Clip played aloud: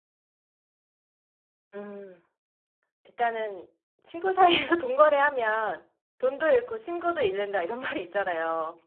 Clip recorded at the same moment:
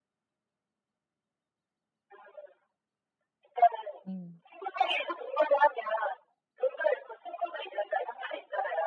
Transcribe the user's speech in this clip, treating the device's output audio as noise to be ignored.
음.

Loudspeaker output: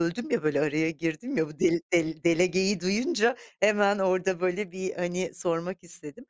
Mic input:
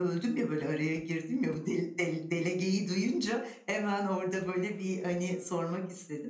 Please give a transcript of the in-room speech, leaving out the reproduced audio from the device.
none

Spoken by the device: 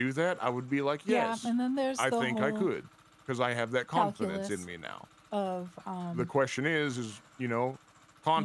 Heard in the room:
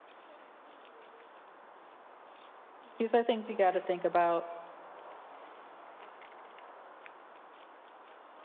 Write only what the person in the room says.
these are things you gotta think about.

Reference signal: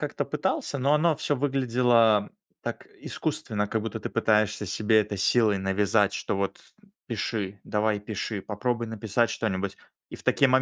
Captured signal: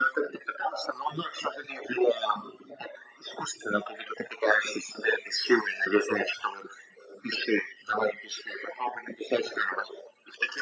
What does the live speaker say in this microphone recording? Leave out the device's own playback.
none

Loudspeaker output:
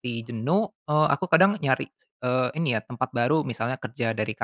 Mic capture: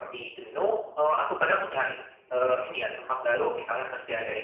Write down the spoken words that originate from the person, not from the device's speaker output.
none

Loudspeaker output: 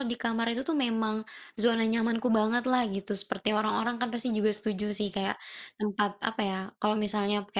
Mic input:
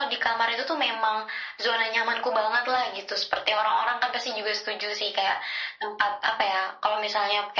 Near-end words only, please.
none

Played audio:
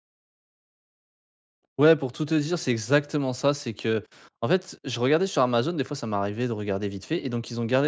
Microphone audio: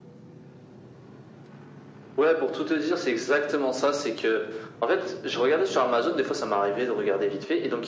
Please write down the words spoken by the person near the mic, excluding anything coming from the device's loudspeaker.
none

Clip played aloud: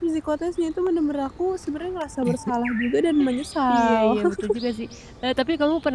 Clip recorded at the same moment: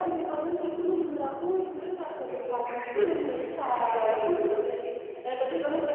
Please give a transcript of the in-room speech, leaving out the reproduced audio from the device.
Mmm.

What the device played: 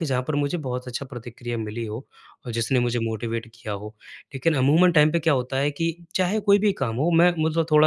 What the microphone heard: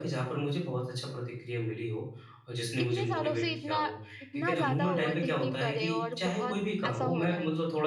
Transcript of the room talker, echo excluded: कितने सालों से इतना, इतना ज़्यादा ओवरथिंकिंग कर रहे हो और बहुत ऐसा हो रहा है?

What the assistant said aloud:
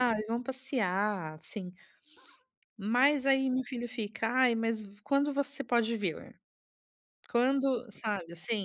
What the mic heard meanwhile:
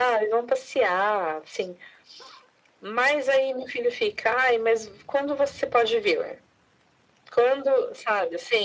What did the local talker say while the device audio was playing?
none

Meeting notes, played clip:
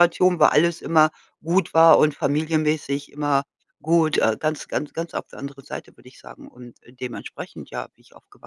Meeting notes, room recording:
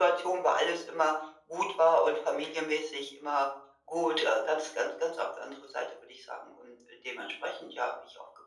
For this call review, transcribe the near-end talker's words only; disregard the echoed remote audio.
none

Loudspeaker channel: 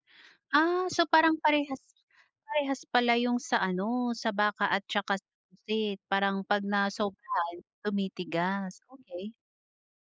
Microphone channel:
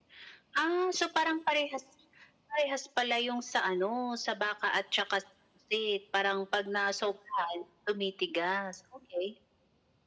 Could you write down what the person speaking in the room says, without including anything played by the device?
none

